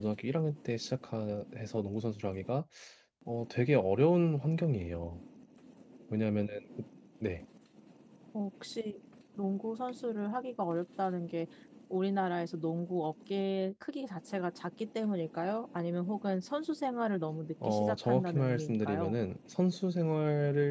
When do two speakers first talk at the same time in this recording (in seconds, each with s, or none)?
17.6 s